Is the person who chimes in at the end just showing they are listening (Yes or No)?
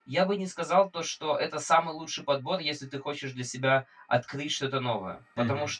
Yes